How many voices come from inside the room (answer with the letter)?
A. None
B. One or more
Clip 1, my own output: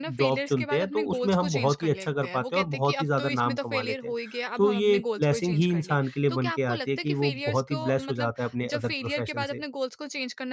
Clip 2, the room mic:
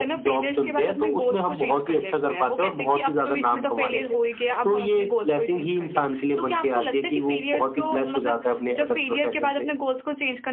A